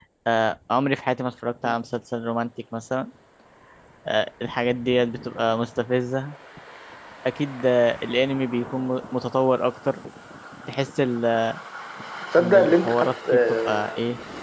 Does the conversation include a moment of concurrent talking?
Yes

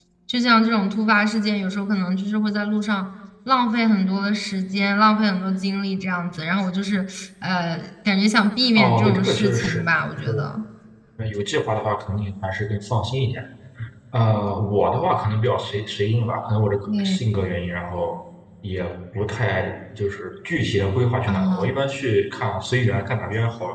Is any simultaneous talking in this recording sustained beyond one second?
Yes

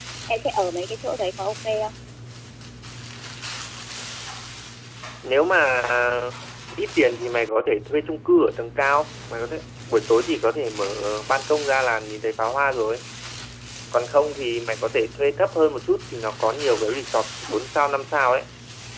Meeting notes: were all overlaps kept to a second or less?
Yes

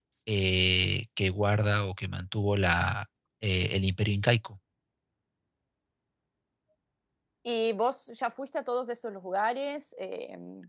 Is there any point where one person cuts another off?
No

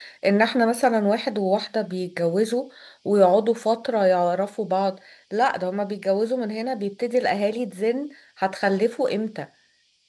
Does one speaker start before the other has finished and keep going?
No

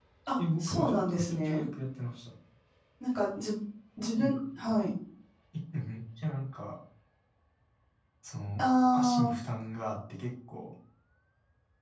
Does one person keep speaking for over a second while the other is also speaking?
Yes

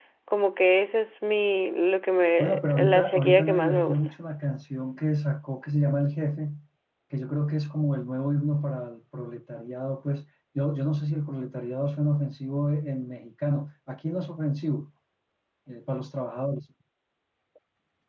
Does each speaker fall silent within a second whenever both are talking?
No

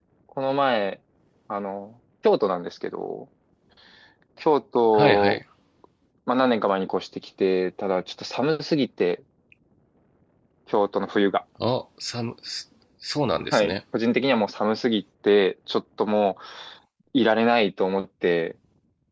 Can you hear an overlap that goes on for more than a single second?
No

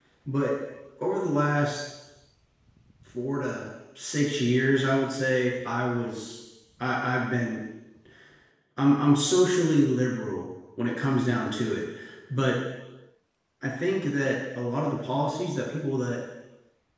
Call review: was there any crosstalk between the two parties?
No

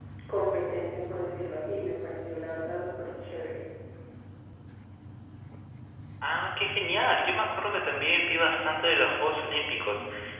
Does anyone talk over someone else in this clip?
No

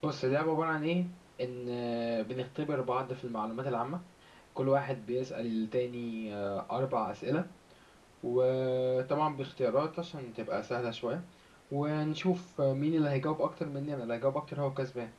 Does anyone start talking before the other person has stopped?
No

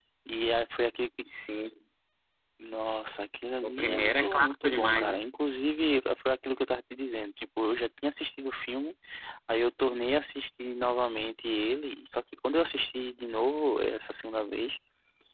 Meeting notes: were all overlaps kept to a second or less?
No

